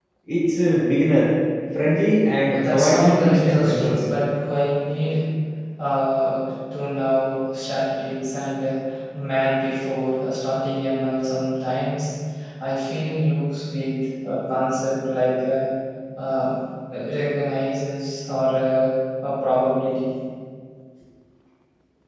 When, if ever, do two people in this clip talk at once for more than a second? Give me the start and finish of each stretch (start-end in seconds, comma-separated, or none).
2.5-4.0